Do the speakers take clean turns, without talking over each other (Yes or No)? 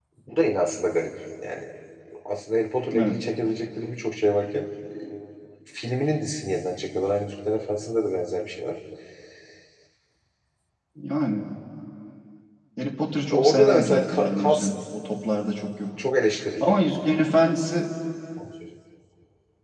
No